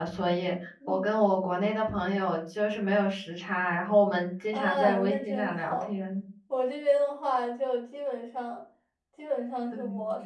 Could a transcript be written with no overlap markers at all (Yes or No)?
No